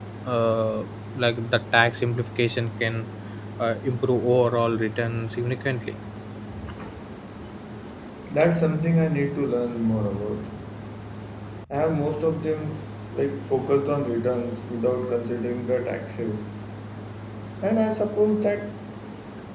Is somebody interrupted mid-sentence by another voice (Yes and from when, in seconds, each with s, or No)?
No